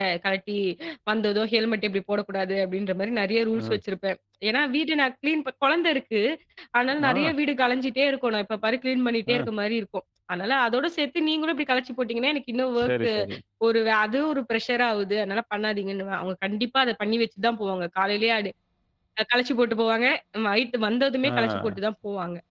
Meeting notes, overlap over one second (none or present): none